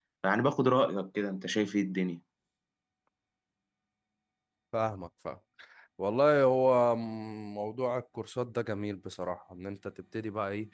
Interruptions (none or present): none